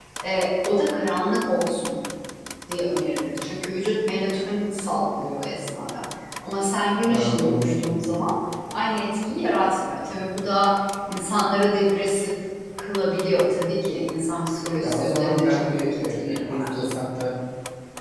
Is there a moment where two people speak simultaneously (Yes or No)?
Yes